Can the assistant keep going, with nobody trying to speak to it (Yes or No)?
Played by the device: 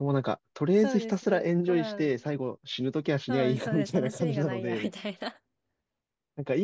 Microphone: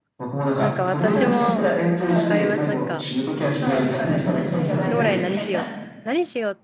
No